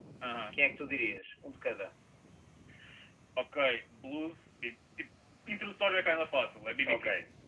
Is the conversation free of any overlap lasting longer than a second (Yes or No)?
Yes